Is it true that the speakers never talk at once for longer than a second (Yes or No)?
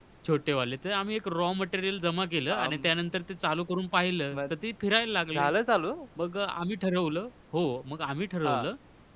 Yes